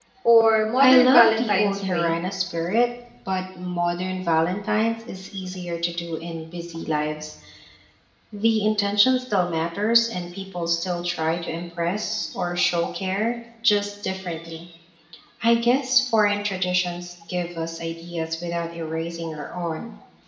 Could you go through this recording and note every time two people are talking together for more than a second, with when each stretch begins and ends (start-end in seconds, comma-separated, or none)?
0.8-2.1